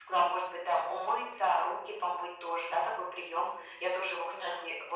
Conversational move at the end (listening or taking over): listening